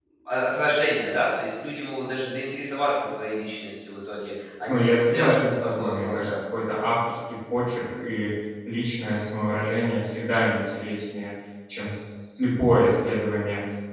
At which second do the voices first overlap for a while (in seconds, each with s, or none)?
4.7 s